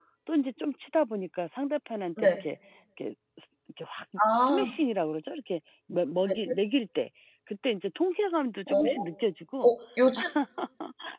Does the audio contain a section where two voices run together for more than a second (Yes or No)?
No